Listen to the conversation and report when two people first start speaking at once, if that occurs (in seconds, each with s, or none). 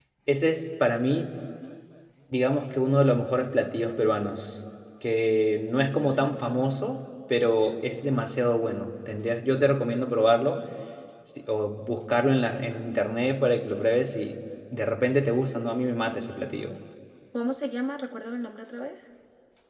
none